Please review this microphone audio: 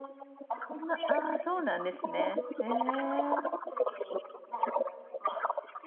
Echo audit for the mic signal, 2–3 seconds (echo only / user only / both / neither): both